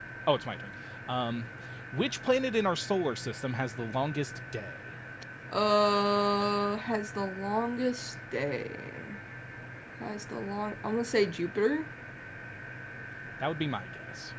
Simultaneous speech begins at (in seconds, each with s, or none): none